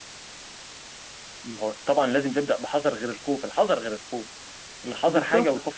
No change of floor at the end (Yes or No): No